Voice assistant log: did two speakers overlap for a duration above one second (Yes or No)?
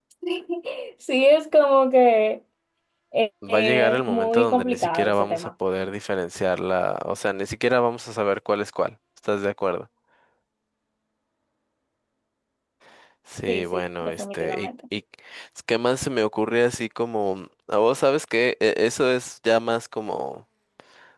Yes